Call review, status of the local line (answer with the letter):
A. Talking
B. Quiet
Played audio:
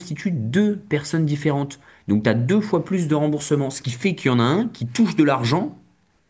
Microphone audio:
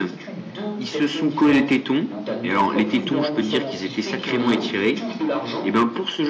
A